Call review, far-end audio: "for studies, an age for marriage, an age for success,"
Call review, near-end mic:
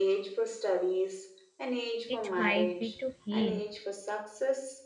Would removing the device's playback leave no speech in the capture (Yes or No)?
No